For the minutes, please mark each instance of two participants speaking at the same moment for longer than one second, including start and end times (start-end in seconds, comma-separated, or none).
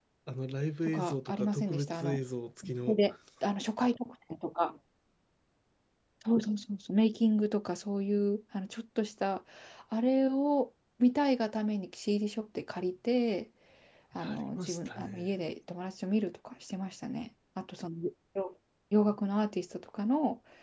0.9-2.2, 14.2-15.4